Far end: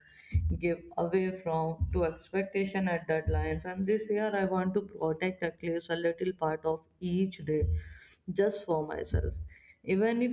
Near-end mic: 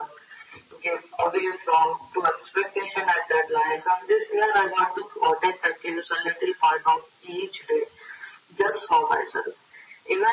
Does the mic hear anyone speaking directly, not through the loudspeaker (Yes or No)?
No